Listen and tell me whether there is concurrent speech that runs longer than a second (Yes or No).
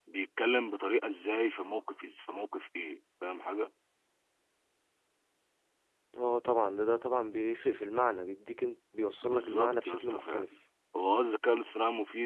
Yes